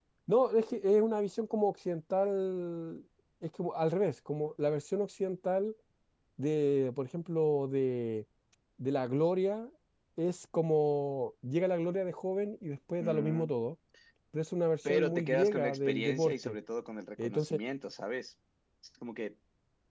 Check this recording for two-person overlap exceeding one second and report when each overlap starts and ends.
14.8-16.6

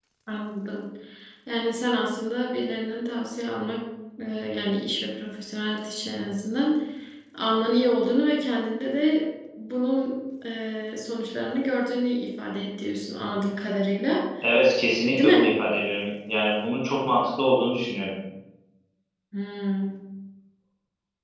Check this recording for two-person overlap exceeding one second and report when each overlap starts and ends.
none

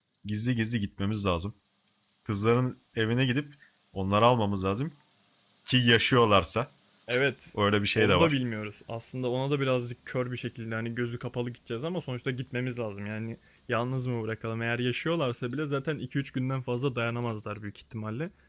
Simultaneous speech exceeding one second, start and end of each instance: none

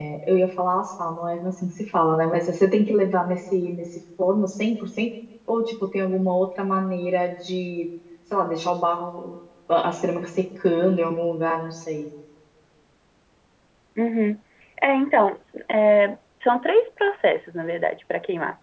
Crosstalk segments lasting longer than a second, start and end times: none

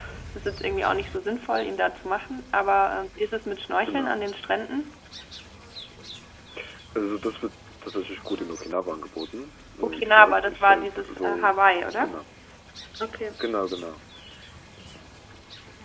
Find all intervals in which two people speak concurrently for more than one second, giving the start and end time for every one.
9.8-11.5

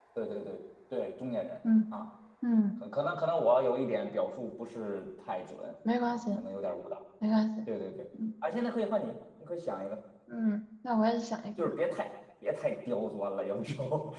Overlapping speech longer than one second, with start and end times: none

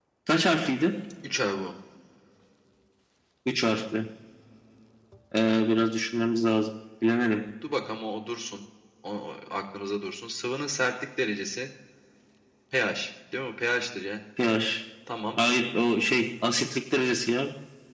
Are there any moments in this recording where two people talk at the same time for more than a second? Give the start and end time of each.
none

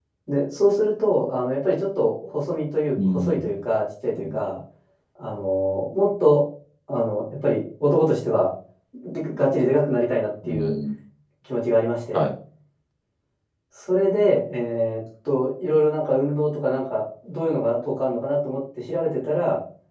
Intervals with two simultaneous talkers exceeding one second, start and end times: none

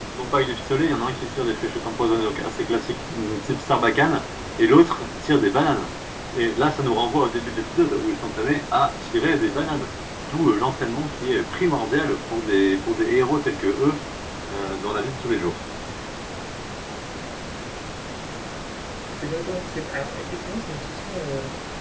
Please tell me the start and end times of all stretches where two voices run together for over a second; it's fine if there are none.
none

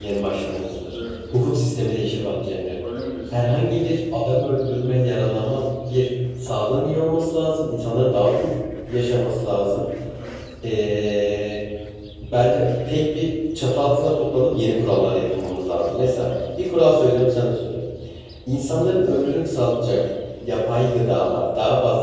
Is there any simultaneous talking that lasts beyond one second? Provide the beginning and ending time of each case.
none

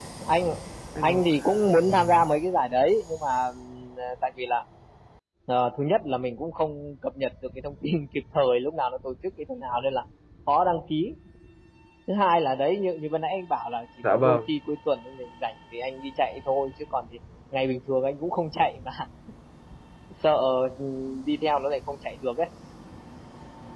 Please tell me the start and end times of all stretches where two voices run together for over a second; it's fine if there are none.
1.0-2.2

